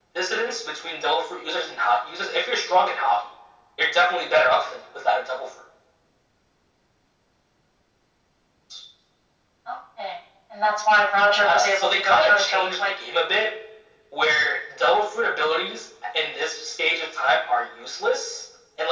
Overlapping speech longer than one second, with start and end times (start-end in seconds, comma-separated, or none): 11.4-12.9